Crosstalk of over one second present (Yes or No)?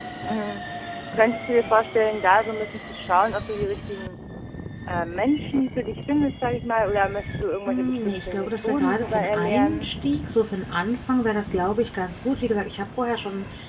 Yes